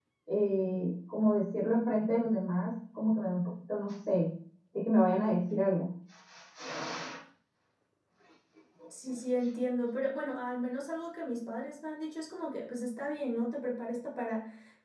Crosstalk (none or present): none